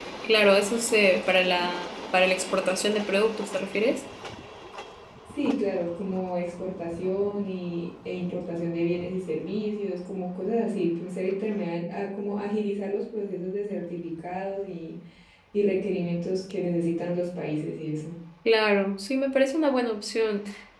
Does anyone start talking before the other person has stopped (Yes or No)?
No